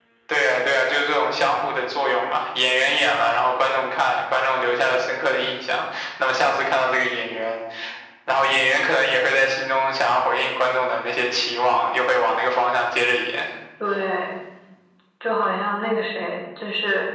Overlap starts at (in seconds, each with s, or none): none